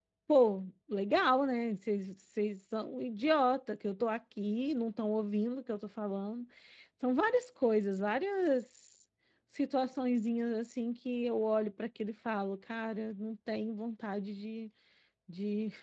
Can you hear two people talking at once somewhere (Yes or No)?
No